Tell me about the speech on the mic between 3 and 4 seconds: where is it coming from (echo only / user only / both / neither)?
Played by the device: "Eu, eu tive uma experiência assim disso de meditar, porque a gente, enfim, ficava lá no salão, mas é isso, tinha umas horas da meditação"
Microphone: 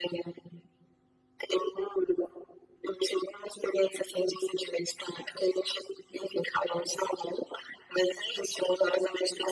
echo only